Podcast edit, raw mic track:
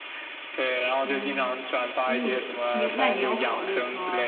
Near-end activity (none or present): present